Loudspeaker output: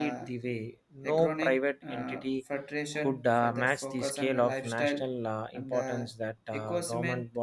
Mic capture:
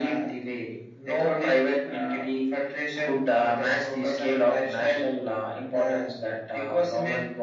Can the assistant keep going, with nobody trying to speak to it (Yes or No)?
Yes